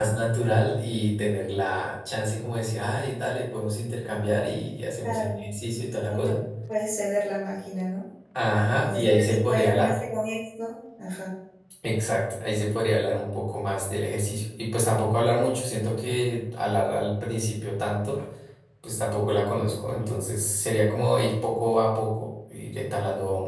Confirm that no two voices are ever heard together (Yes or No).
No